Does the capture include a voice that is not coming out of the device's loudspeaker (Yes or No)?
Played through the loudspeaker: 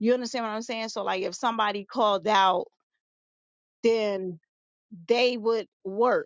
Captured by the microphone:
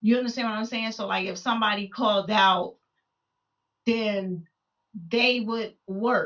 No